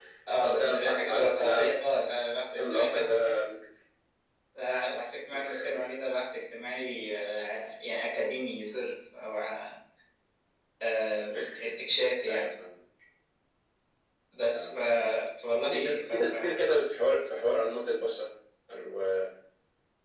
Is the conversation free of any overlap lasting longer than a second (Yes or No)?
No